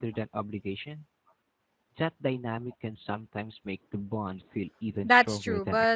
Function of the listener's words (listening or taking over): taking over